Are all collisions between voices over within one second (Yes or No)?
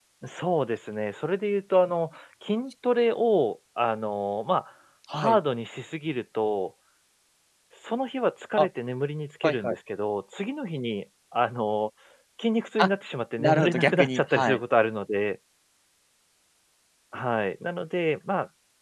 No